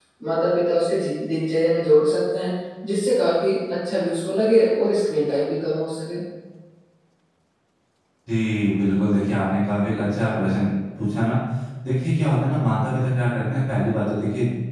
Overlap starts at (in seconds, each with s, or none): none